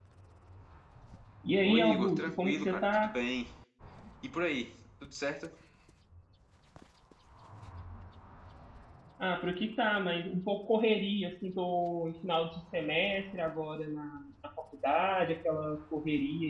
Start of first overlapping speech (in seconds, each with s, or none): 1.6 s